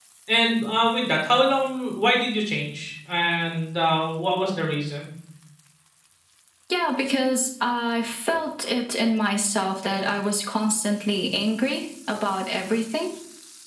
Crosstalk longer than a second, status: none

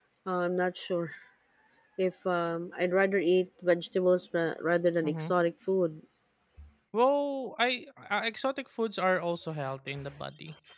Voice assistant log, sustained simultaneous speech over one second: none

